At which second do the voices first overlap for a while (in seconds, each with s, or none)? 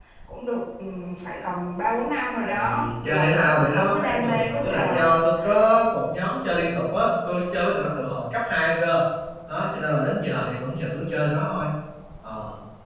2.5 s